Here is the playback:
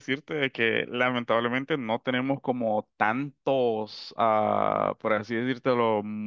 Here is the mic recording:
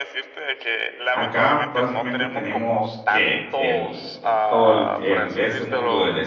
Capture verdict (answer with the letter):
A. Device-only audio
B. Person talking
B